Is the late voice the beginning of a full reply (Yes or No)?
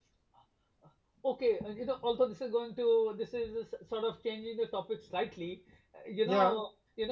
No